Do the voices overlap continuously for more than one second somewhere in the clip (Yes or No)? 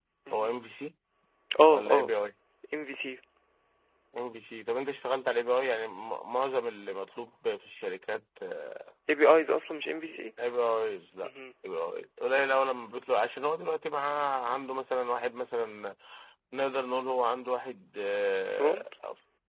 No